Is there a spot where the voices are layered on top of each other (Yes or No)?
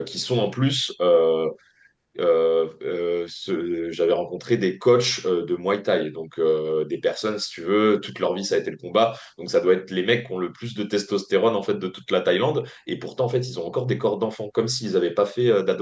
No